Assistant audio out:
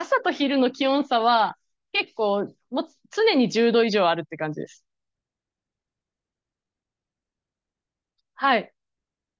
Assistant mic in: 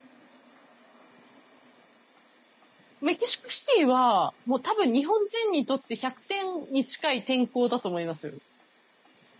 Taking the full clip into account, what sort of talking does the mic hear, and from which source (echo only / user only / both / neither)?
user only